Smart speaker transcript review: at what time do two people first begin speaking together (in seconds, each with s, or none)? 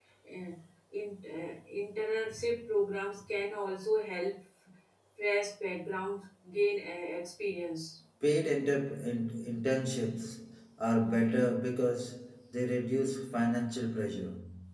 none